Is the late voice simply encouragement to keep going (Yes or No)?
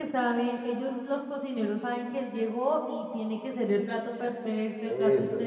No